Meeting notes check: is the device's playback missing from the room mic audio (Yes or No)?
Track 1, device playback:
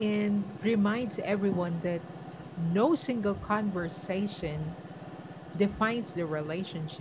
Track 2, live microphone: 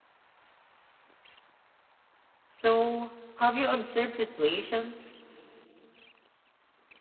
Yes